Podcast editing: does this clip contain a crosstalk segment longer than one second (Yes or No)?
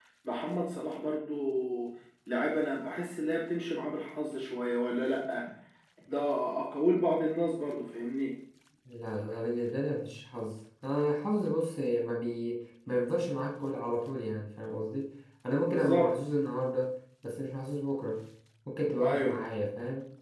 No